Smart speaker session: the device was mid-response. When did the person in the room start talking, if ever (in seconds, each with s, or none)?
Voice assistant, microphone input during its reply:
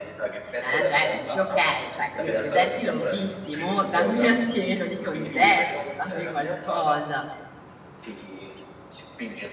0.6 s